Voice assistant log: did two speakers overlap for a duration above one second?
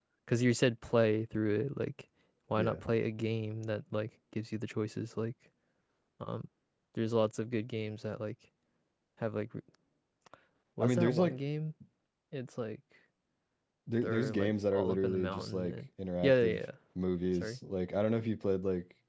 Yes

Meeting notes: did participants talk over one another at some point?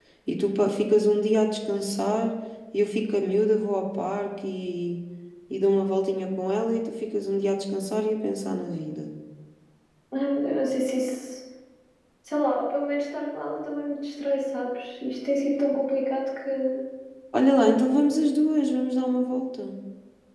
No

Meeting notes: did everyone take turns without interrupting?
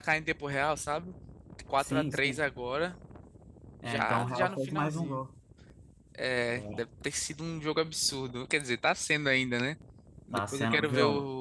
No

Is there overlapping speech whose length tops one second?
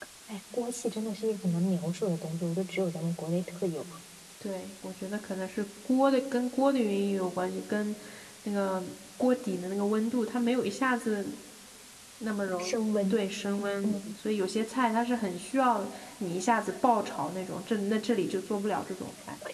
No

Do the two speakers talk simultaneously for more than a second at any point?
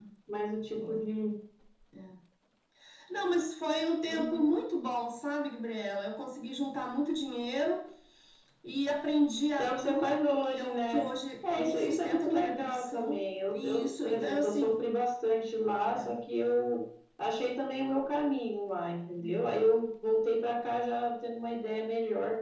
Yes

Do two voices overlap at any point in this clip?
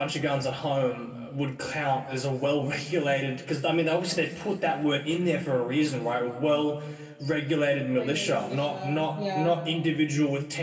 Yes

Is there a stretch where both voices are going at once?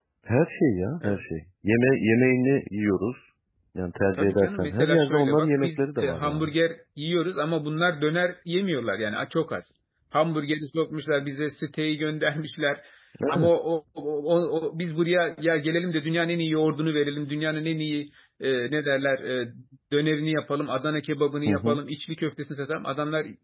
Yes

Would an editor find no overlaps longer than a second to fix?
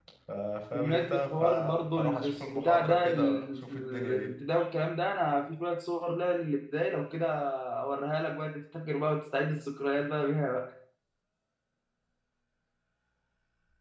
No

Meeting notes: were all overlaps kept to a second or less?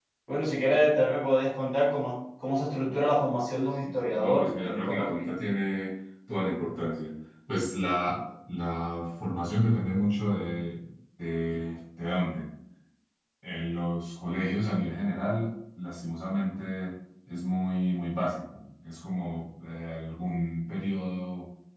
No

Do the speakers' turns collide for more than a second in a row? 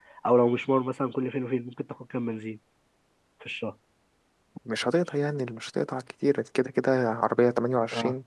No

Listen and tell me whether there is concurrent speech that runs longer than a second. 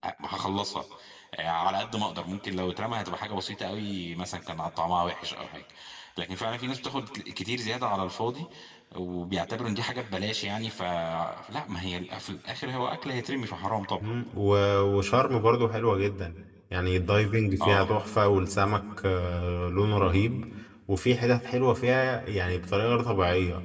No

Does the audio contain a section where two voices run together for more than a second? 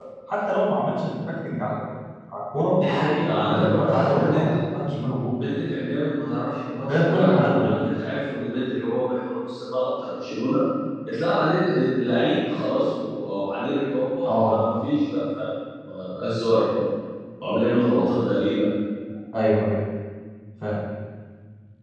Yes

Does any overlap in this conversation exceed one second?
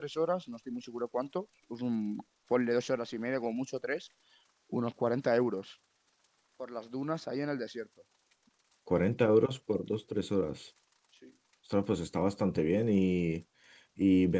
No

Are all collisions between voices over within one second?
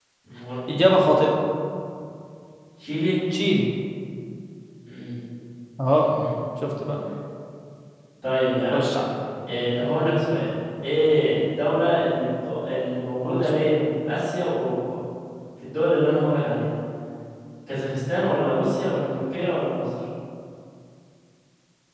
Yes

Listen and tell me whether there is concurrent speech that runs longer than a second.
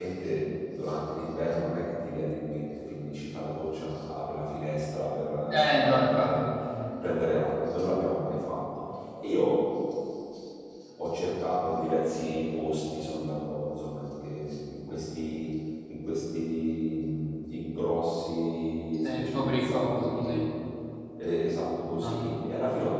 Yes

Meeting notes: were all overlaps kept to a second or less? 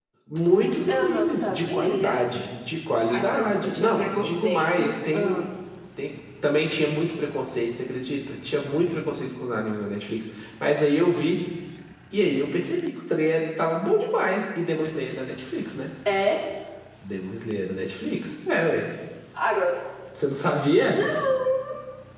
No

